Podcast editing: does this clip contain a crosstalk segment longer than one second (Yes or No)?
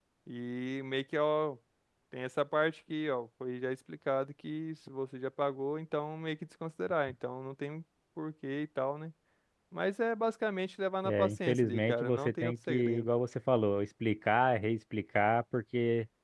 Yes